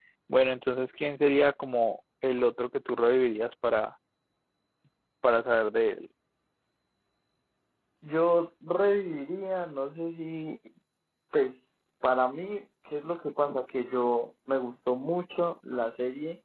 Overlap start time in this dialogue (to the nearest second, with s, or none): none